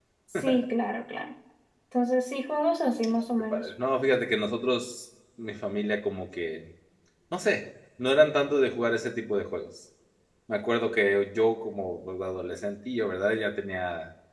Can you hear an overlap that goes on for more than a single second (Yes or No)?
No